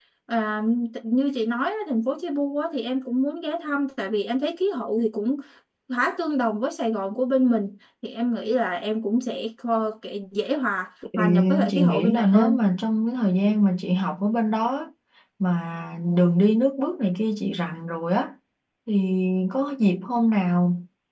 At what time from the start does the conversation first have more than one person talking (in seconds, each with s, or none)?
11.1 s